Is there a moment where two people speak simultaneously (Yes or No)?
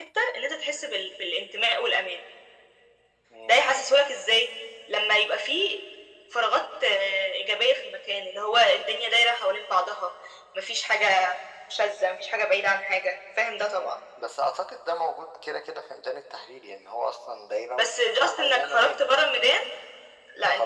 Yes